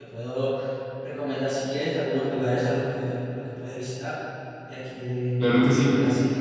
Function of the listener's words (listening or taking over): taking over